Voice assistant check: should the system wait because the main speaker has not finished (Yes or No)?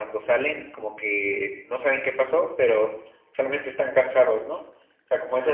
No